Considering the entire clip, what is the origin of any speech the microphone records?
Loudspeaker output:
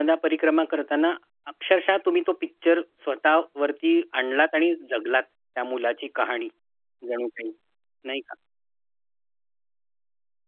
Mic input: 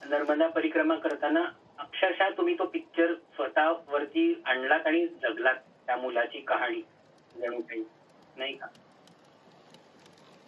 echo only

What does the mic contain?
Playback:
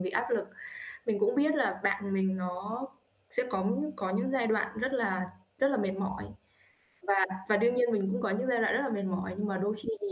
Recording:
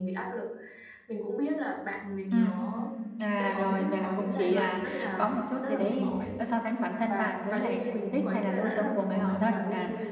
both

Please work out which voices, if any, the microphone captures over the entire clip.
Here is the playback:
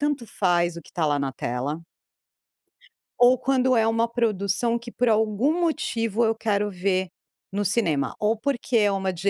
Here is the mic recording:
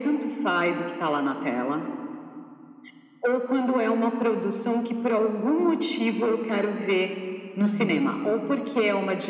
both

